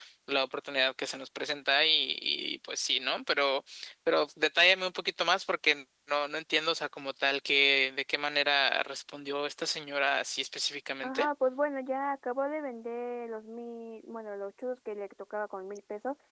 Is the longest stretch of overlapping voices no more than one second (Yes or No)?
Yes